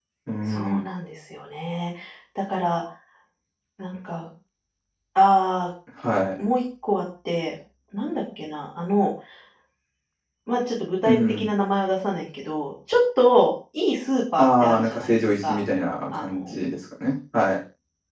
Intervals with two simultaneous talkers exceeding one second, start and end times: 14.4-15.6

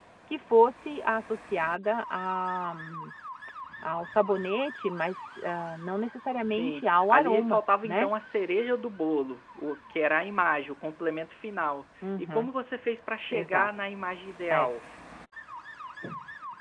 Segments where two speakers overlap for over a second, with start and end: 6.4-8.1

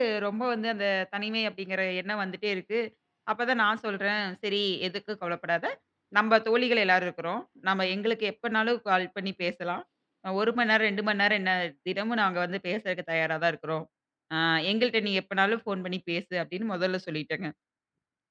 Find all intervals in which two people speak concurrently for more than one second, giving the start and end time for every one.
none

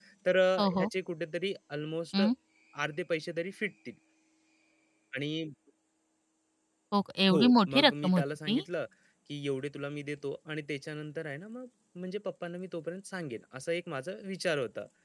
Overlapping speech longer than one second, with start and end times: 7.3-8.6

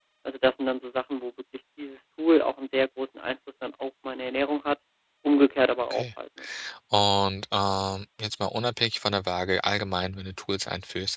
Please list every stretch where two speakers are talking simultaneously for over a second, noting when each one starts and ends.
none

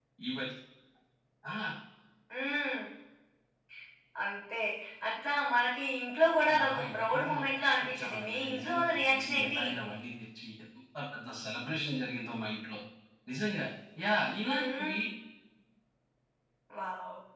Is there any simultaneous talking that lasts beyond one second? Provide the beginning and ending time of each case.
6.6-9.6

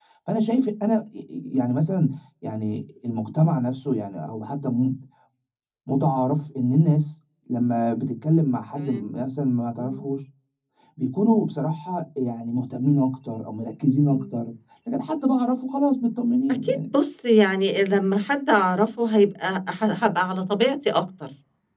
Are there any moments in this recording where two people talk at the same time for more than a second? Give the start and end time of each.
none

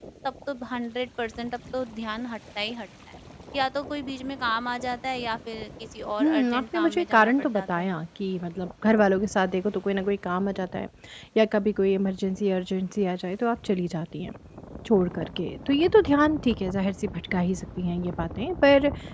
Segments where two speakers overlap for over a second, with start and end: 6.2-7.9

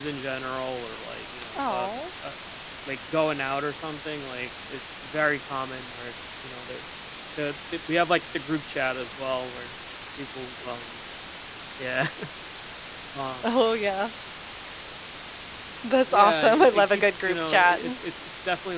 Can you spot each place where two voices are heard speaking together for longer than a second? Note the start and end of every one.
16.1-17.8

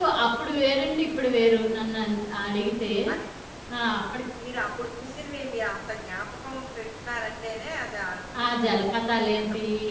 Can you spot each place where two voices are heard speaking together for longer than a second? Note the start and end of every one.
none

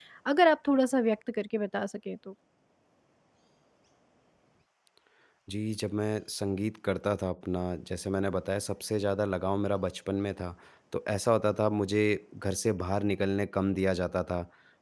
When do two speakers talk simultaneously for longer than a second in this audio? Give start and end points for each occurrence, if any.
none

